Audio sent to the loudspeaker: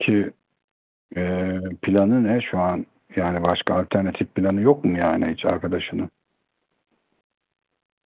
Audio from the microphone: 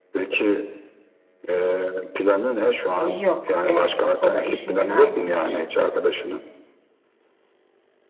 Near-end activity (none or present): present